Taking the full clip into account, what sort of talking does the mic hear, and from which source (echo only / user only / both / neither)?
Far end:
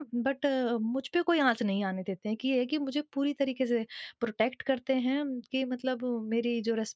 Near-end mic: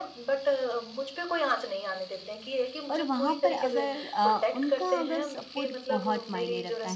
both